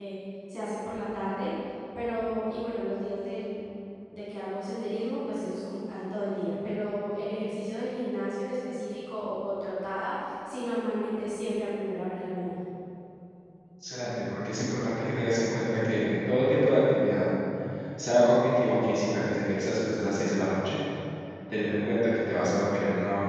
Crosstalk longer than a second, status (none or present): none